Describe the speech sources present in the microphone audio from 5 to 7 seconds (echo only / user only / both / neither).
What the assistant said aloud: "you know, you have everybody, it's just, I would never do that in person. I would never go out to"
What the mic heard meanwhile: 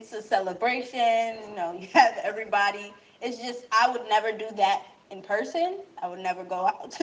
echo only